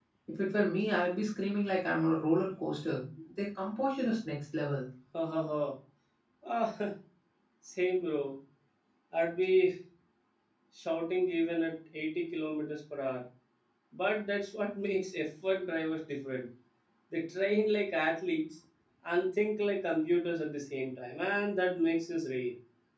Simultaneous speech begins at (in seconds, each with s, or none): none